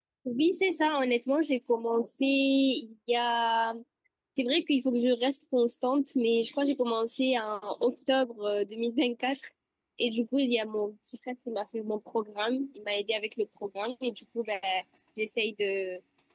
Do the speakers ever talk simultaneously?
No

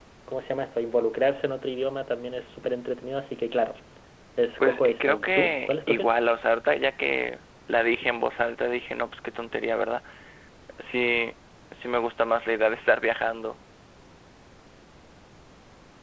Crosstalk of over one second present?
Yes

